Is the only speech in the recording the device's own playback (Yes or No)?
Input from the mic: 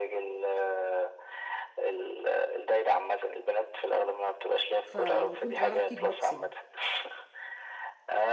No